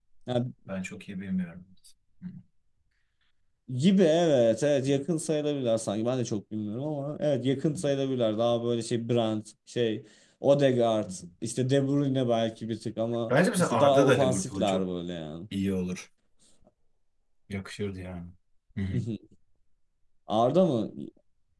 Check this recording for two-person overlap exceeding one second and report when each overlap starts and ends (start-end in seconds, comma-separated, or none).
13.3-14.8